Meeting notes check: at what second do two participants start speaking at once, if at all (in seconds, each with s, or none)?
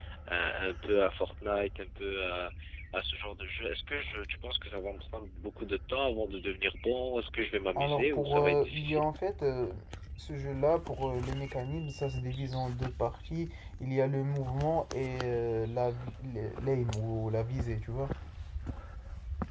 7.8 s